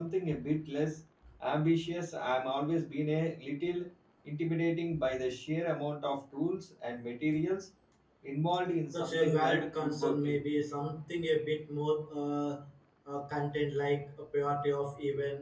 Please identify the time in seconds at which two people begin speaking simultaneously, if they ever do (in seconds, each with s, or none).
8.9 s